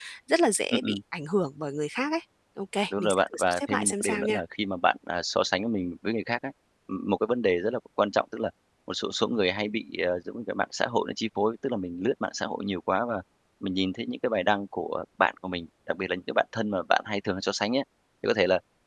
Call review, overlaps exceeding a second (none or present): present